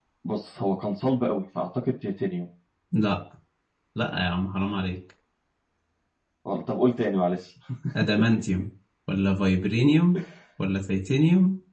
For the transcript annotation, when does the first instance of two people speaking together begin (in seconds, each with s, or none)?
none